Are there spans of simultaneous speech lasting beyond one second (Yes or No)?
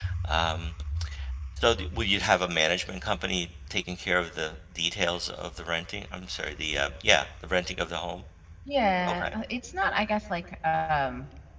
No